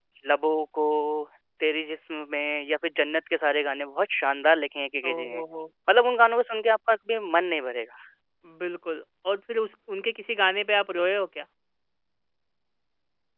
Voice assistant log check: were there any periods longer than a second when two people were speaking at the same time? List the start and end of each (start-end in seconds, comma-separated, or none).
none